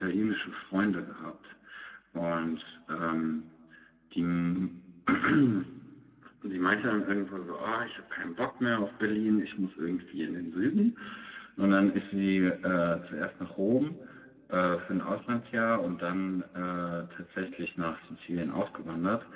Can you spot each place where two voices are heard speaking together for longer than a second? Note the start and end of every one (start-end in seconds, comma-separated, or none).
none